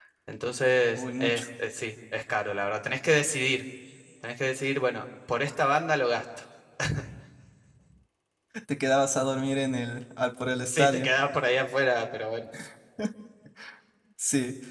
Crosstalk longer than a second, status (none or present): none